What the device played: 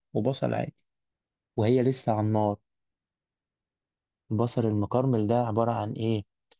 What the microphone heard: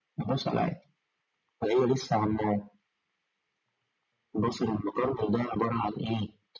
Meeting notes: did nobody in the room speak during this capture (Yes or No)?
Yes